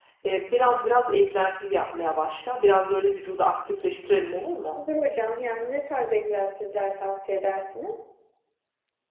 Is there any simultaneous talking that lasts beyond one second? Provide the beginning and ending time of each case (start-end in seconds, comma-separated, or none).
none